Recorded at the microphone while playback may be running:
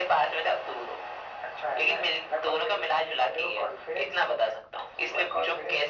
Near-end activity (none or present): none